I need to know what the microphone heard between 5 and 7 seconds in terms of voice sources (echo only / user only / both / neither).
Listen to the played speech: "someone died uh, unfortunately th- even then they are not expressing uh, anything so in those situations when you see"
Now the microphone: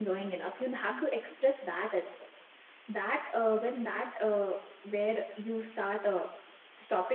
user only